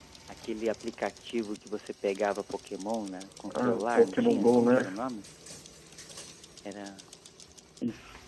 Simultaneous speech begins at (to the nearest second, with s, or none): 3 s